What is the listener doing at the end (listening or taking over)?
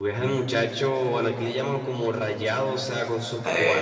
listening